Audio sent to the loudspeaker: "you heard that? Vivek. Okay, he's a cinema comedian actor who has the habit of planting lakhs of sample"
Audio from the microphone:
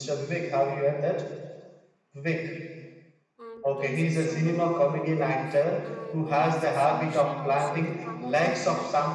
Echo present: Yes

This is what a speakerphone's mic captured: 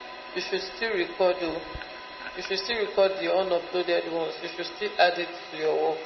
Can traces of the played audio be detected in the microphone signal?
Yes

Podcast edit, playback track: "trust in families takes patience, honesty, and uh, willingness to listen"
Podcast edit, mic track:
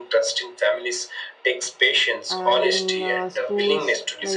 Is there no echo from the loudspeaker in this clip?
No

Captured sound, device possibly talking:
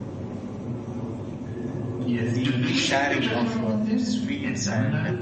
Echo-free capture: No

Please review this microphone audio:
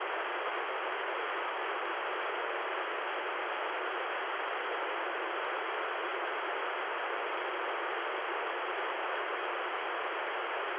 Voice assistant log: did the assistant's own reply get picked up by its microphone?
No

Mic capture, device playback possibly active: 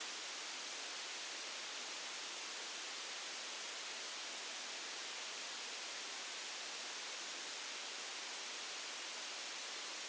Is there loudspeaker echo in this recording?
No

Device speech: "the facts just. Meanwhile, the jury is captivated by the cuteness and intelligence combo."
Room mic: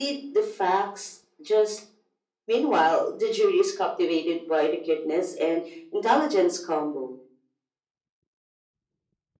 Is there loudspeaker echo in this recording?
Yes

